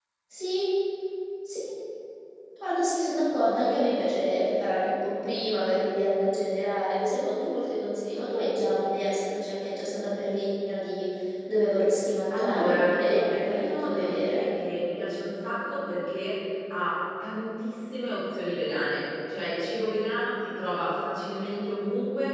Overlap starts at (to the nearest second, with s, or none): 12 s